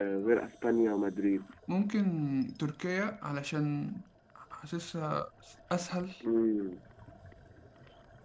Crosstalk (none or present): none